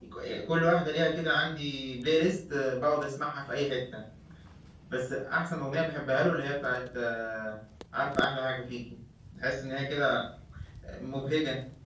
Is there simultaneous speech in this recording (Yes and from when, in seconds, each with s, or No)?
No